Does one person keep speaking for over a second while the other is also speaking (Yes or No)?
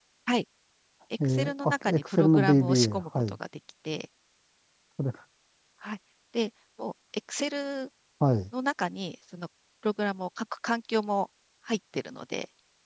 Yes